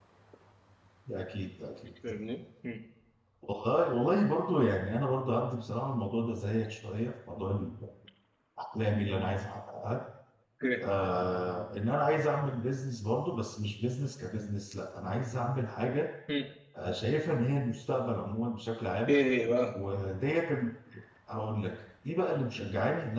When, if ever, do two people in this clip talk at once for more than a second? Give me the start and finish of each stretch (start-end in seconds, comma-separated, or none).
none